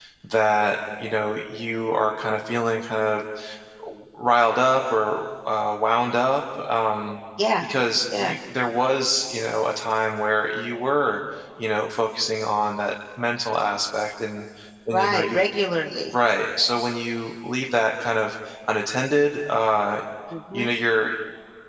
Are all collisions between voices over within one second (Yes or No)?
Yes